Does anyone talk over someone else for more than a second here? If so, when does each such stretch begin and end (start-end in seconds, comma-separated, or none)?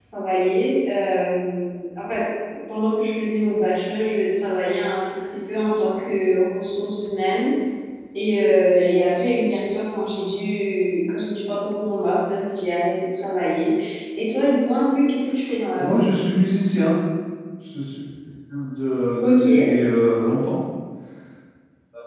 none